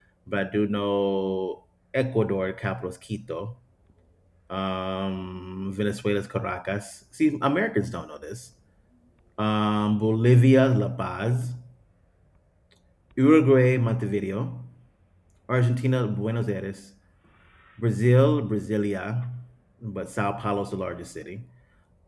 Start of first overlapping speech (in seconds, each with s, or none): none